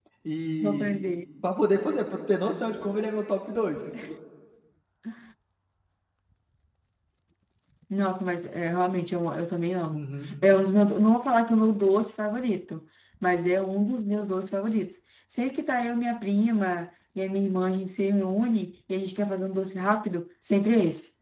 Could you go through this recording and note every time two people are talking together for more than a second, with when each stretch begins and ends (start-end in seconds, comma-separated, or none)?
none